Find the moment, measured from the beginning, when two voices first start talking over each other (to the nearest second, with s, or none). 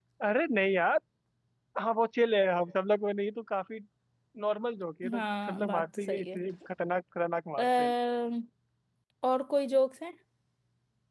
5 s